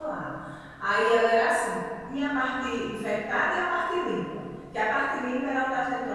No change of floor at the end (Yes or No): Yes